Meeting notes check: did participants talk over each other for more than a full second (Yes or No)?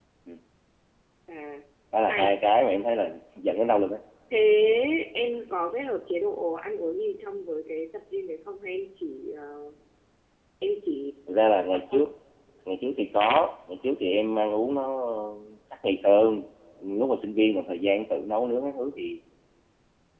No